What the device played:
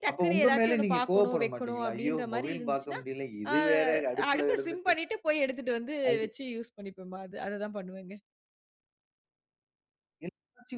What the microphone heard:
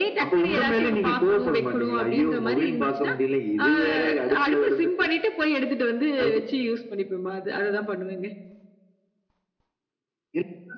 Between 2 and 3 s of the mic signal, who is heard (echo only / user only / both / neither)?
echo only